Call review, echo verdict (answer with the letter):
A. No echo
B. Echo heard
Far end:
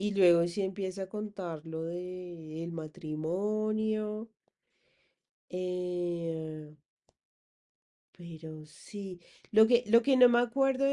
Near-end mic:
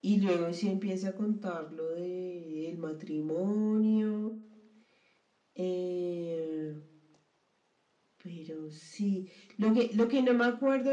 B